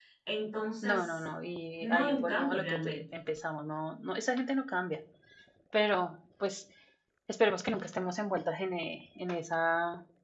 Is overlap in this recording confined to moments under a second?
No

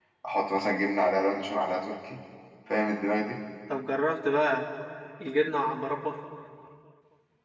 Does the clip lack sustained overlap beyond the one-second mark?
Yes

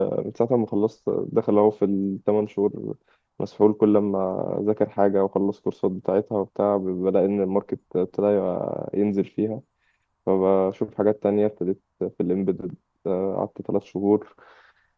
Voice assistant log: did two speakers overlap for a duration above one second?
No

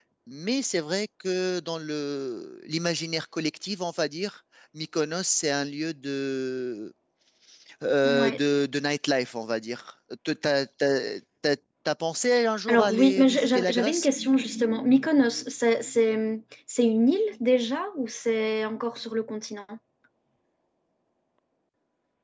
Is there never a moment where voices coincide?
No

